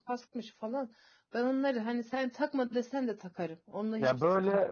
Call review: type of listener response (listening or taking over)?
taking over